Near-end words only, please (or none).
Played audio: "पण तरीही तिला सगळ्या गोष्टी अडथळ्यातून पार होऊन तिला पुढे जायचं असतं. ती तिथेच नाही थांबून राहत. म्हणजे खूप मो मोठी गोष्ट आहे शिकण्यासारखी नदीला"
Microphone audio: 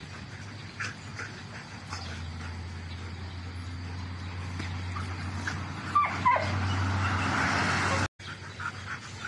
none